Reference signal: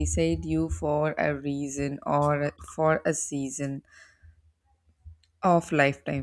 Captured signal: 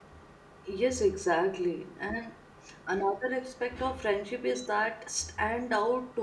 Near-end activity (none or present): present